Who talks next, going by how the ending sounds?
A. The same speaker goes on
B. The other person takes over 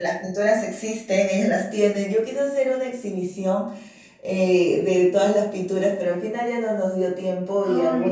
A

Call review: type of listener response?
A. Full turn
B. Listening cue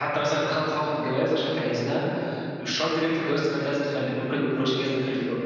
A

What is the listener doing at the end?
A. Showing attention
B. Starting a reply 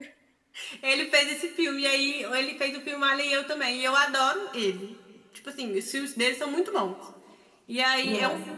A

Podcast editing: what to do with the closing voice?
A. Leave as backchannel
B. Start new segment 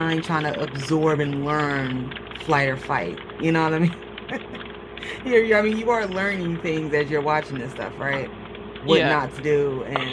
A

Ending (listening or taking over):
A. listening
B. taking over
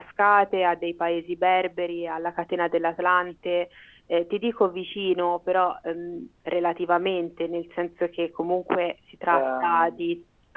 A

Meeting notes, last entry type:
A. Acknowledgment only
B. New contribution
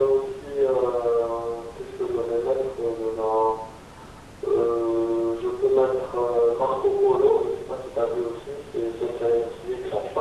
A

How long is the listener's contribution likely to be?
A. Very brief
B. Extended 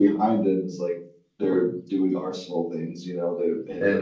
A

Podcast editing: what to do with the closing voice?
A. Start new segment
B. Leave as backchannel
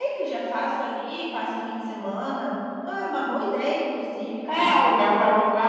A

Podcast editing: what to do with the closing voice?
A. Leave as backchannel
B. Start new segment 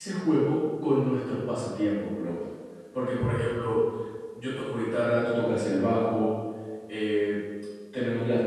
A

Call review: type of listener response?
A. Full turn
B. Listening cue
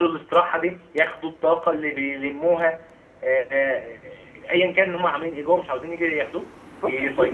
A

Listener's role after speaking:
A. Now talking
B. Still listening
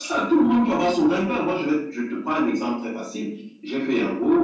B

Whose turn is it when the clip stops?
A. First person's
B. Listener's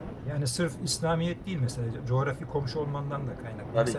A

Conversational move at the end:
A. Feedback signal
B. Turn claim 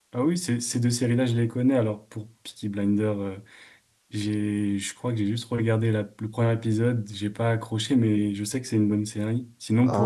B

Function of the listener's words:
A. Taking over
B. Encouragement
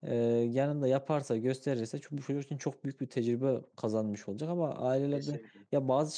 B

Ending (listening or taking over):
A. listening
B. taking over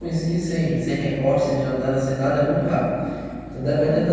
A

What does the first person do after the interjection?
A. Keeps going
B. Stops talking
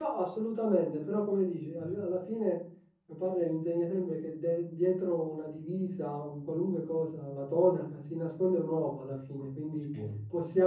A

